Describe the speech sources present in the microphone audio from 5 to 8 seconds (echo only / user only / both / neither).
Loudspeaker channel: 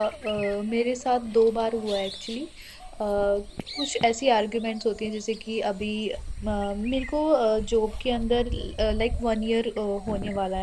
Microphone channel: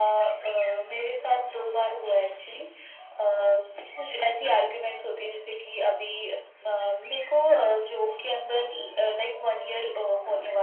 echo only